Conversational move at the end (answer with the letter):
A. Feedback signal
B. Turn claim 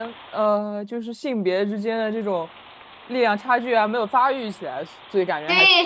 B